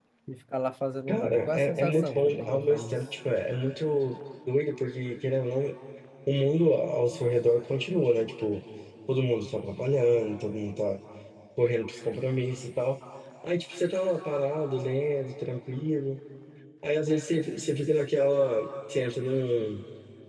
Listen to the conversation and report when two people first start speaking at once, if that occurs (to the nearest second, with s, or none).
1 s